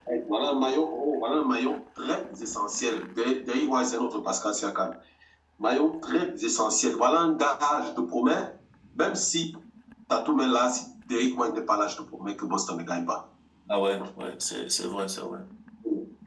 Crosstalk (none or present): none